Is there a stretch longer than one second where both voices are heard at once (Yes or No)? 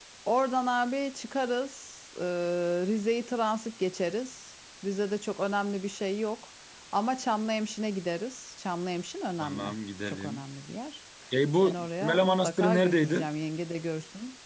Yes